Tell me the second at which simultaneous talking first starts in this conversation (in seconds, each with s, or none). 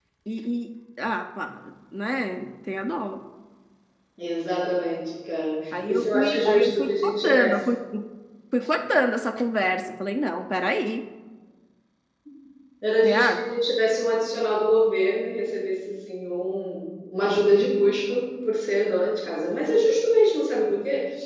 5.9 s